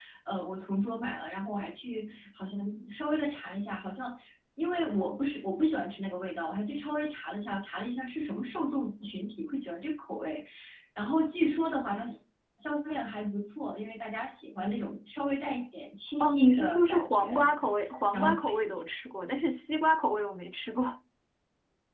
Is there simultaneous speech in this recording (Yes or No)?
Yes